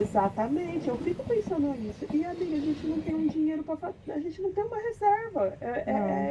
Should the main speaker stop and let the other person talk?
No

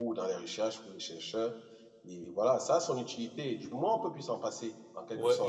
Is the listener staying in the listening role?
No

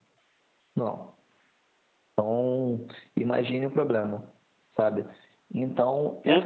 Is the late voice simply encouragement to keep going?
No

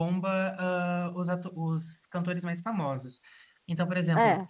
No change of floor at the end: Yes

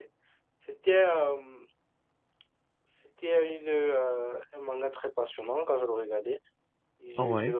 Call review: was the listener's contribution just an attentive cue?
Yes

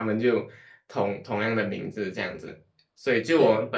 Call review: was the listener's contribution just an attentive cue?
Yes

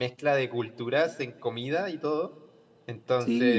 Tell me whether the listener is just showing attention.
Yes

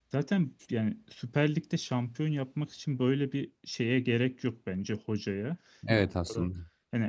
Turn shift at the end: No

